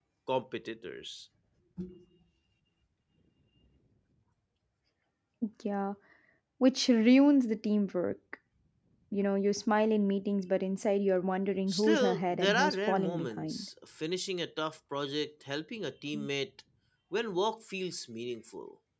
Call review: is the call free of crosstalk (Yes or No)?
No